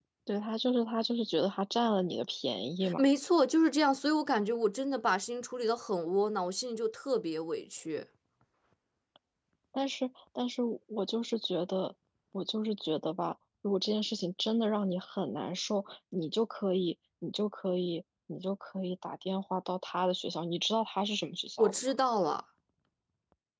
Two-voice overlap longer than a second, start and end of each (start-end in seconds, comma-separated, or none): none